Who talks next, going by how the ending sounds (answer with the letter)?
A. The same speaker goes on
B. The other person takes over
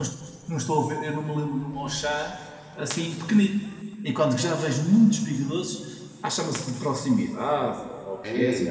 B